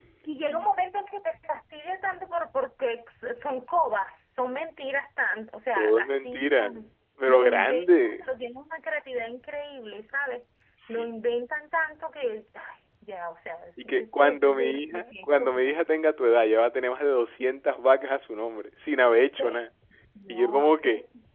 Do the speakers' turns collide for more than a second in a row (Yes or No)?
Yes